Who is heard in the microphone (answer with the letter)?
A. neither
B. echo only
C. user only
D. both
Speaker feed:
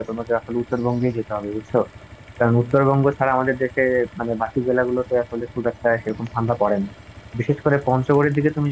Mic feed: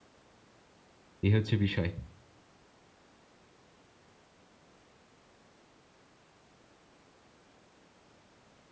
C